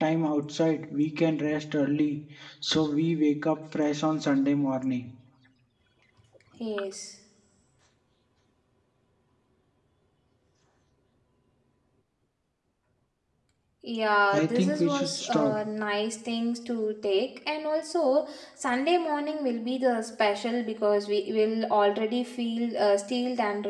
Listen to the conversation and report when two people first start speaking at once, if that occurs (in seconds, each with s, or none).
14.3 s